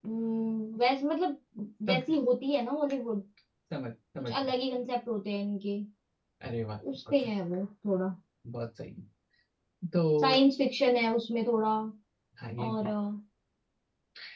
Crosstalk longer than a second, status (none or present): none